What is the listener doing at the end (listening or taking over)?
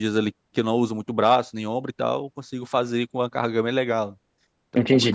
taking over